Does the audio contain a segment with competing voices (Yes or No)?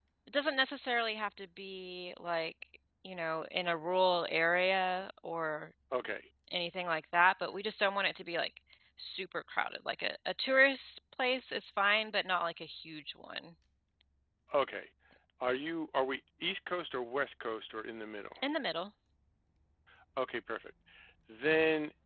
No